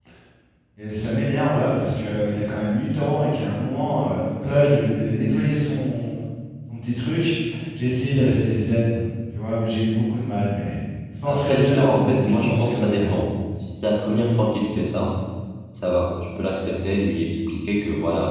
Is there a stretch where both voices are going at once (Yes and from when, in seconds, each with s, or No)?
Yes, from 11.2 s